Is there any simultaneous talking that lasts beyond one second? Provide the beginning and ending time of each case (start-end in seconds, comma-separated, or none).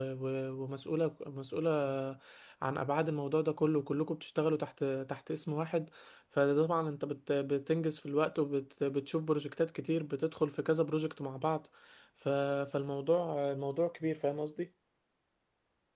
none